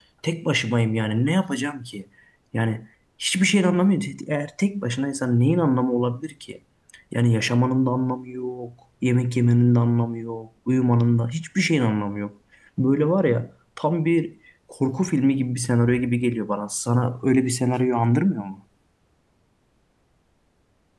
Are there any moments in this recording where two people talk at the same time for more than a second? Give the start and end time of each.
none

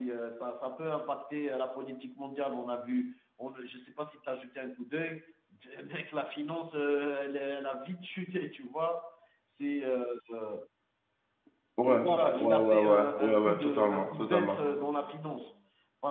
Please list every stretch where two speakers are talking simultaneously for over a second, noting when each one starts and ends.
12.4-14.6

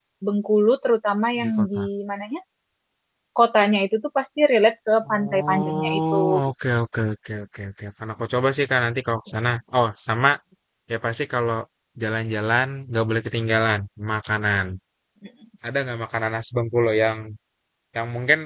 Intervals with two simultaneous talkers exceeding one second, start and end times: 5.1-6.5

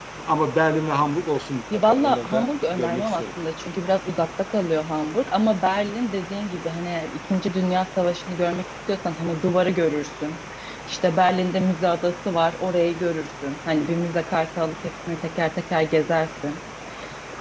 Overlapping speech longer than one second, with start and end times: 1.7-3.2

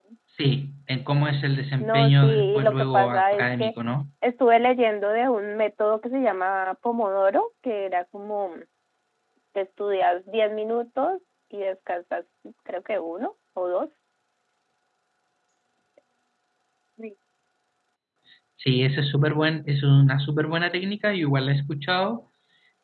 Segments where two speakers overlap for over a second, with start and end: 1.8-3.7

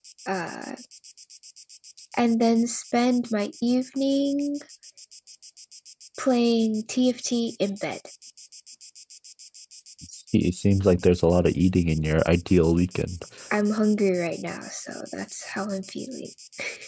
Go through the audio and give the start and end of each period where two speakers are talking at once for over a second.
none

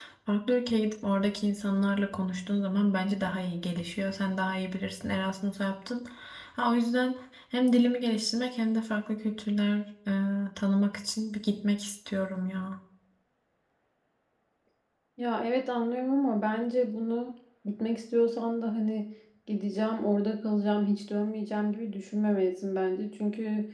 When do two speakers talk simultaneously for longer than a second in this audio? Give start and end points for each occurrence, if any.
none

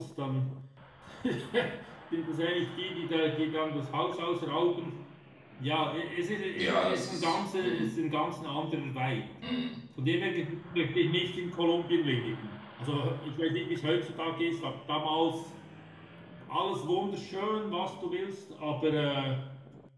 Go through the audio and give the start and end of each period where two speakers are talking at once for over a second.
6.6-7.9

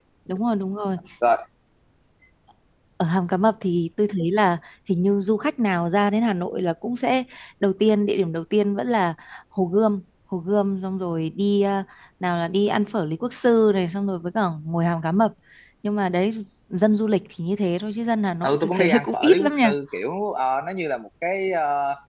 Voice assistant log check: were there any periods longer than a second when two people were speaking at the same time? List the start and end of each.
18.4-19.7

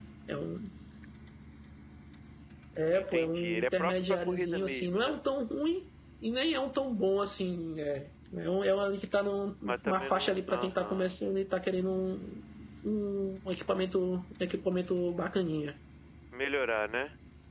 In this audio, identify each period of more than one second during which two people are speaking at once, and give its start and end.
2.9-5.2, 9.7-11.2

